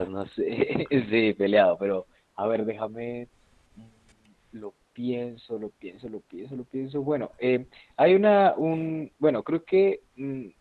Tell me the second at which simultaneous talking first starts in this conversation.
none

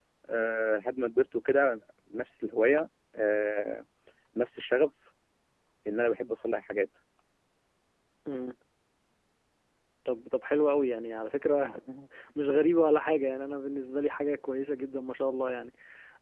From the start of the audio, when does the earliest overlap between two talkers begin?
none

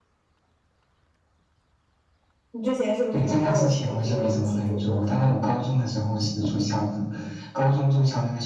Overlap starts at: 3.1 s

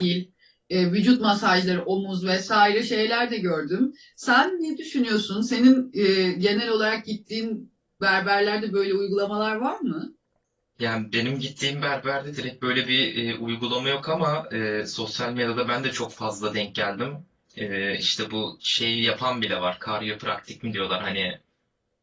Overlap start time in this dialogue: none

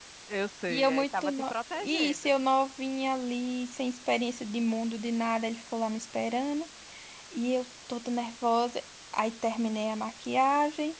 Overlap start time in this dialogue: 0.7 s

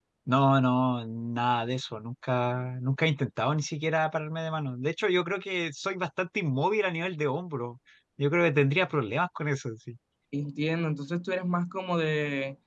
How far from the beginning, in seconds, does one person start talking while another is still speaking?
none

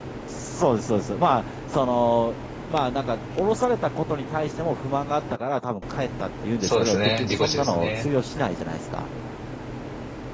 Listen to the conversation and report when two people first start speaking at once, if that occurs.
6.6 s

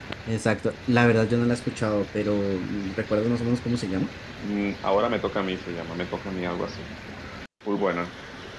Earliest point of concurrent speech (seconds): none

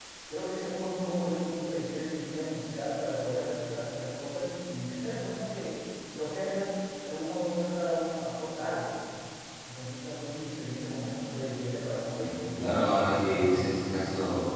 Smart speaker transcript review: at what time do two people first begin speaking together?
12.2 s

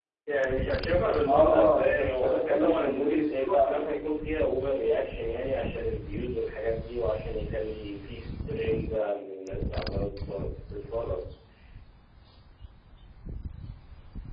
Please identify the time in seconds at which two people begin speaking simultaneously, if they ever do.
1.3 s

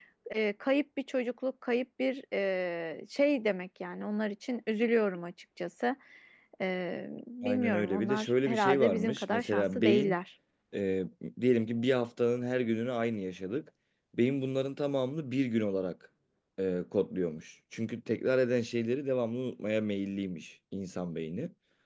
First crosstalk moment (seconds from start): 7.4 s

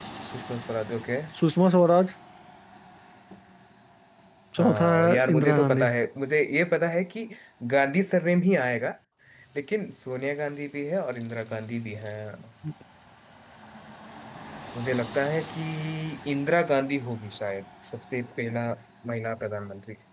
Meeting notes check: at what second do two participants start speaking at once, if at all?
4.6 s

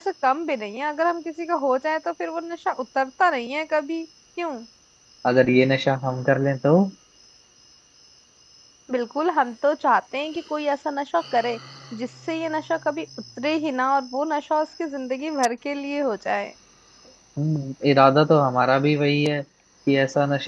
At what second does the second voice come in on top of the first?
none

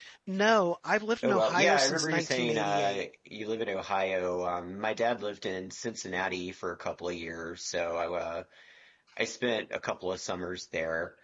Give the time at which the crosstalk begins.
1.2 s

